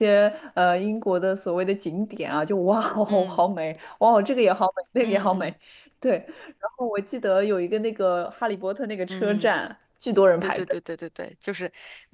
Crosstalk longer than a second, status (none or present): none